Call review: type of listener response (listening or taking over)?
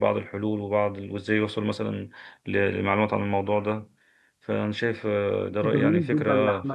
taking over